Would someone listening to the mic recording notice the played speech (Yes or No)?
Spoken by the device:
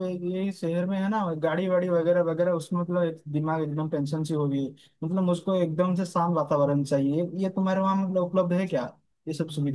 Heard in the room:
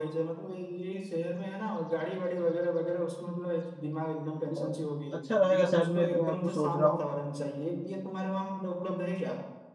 Yes